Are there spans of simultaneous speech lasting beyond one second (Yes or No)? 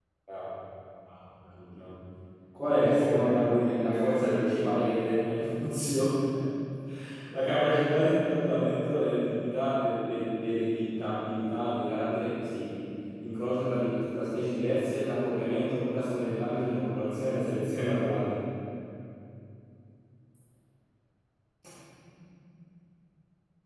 Yes